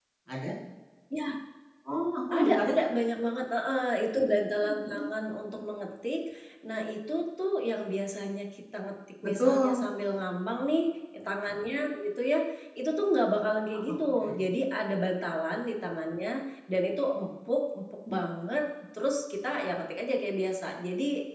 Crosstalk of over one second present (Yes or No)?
No